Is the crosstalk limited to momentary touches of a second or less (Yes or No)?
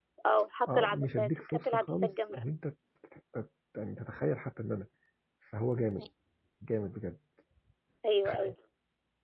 No